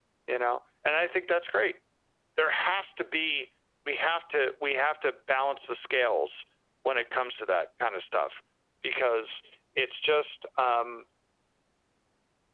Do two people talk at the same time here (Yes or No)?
No